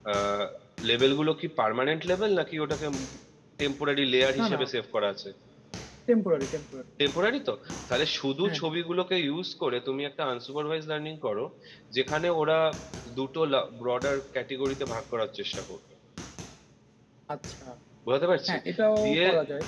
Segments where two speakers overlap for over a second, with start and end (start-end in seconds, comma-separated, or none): none